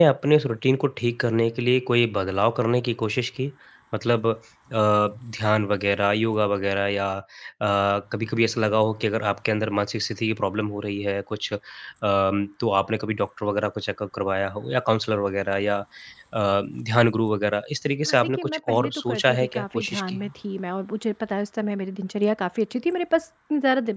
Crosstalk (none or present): present